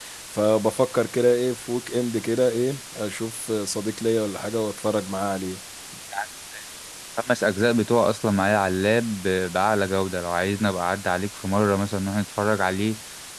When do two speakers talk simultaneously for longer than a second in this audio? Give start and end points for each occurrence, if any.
none

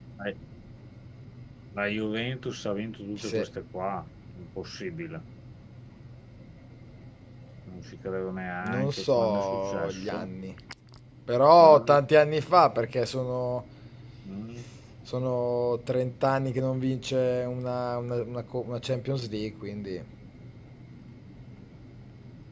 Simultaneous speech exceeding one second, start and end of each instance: 8.7-10.3

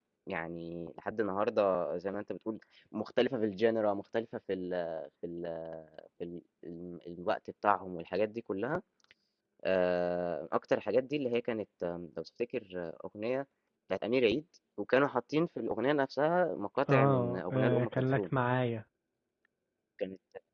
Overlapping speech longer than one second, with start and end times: 16.9-18.2

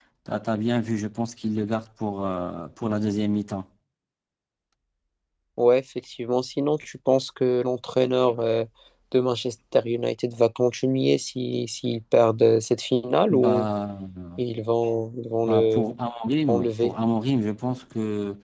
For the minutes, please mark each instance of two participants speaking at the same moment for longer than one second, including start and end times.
none

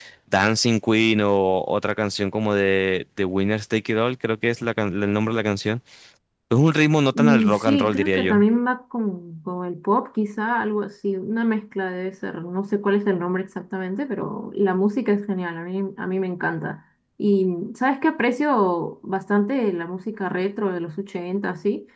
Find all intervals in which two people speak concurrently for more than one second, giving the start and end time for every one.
7.1-8.4

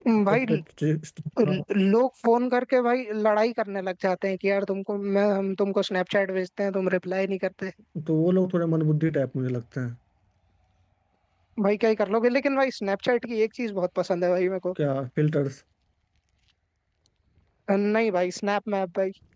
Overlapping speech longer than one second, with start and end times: none

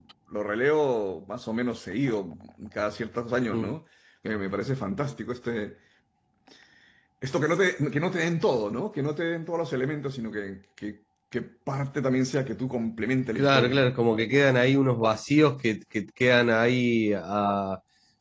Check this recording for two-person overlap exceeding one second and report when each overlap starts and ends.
none

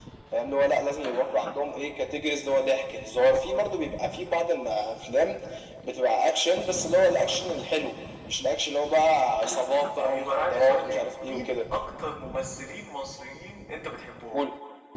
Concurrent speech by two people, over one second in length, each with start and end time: 10.0-11.6

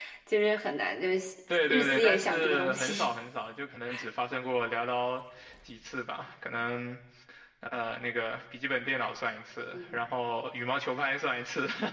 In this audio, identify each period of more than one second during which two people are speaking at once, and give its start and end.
1.7-3.1

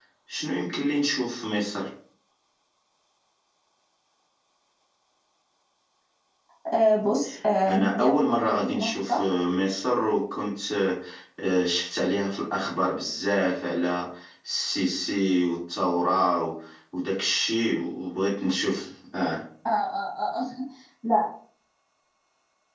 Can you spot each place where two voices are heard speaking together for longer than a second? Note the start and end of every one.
7.7-9.2

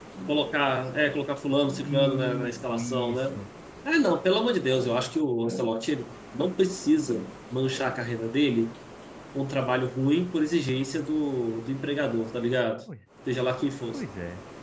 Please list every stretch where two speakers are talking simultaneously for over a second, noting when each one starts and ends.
1.8-3.4

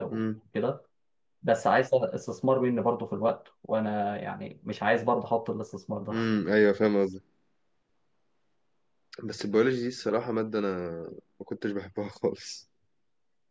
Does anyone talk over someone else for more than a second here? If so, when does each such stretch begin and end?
none

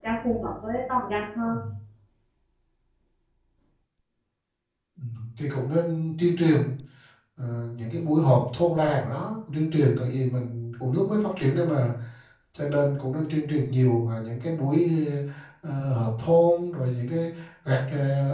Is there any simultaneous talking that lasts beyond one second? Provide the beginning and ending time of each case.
none

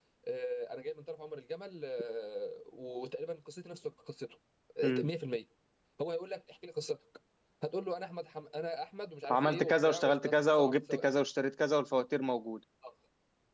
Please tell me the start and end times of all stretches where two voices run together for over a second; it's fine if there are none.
9.3-11.0

